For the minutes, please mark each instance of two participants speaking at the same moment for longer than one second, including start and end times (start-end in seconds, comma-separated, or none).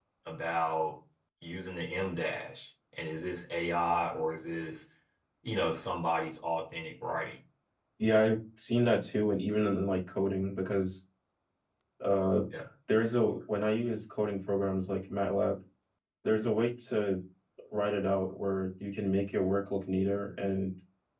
none